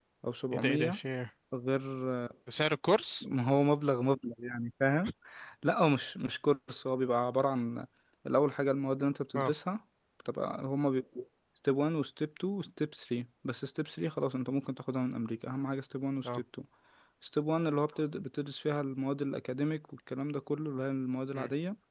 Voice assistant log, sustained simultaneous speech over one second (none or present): none